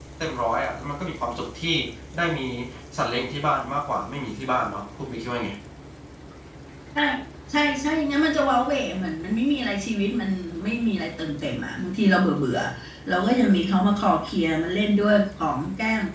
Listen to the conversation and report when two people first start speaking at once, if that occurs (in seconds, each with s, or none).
none